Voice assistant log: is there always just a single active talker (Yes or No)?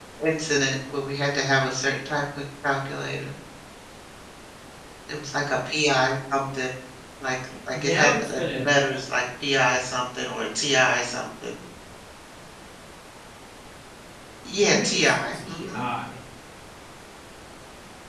No